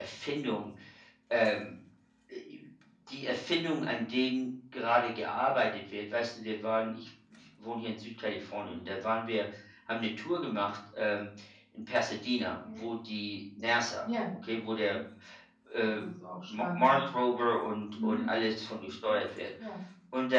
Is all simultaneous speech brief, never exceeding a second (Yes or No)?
Yes